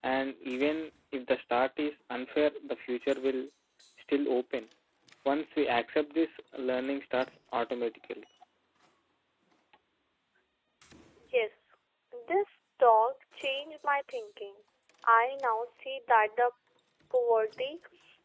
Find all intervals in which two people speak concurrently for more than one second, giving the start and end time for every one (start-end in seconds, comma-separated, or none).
none